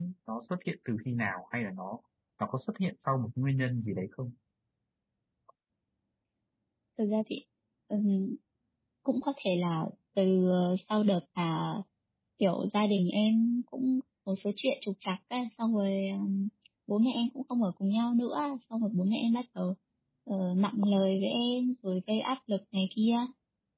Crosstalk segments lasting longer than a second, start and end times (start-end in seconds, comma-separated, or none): none